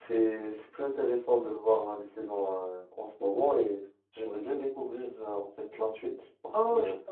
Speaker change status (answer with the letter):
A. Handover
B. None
A